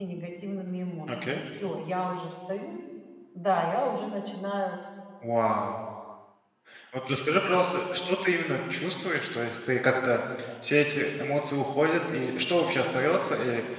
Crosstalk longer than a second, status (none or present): none